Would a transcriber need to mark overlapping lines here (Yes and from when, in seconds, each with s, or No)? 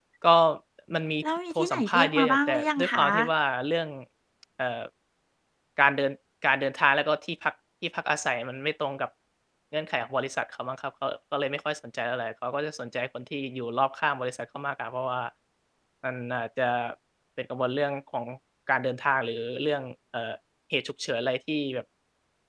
Yes, from 1.5 s